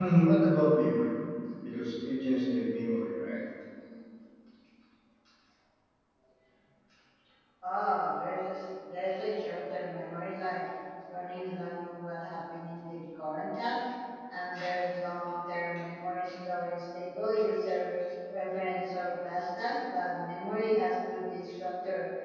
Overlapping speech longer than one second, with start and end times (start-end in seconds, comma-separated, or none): none